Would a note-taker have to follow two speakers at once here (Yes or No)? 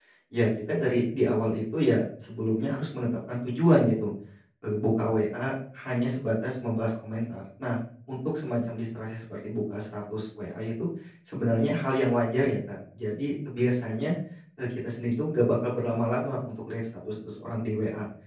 No